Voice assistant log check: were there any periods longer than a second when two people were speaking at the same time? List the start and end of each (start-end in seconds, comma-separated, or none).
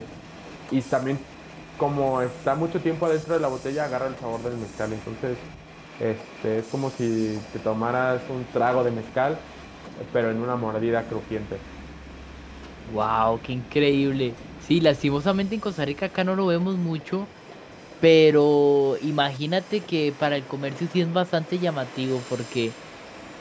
none